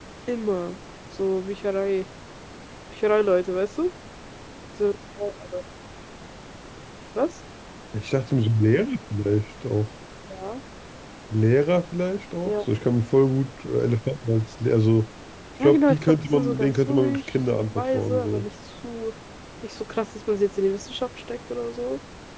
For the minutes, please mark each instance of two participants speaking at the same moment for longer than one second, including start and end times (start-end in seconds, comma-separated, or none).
15.6-18.5